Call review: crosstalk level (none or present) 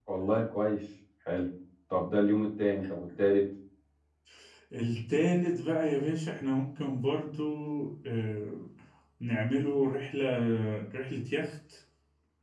none